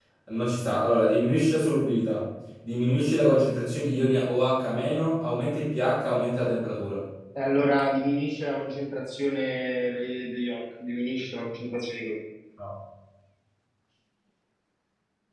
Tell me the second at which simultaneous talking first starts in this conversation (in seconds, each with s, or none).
none